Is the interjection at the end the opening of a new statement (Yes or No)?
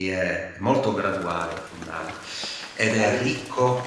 Yes